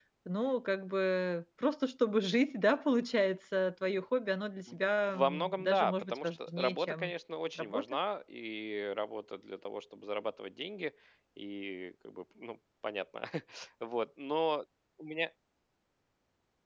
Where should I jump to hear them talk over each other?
5 s

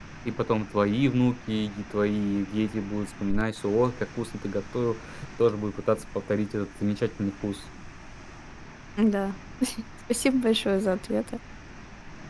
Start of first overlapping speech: none

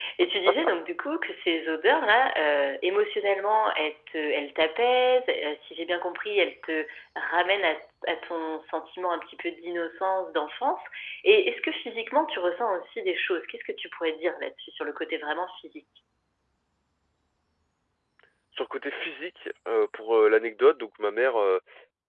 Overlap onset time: none

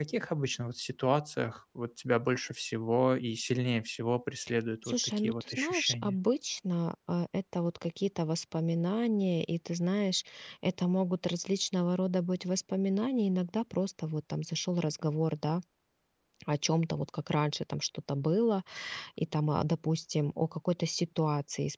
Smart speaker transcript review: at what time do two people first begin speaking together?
5 s

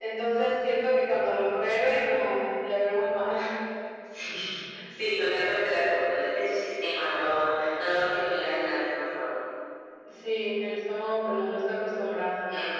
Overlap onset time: none

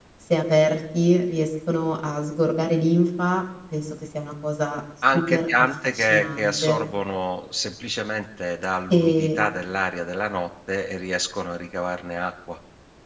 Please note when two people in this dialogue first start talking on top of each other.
5 s

